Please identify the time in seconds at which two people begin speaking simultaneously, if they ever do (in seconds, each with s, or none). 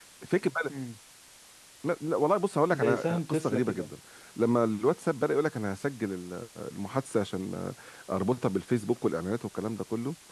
2.7 s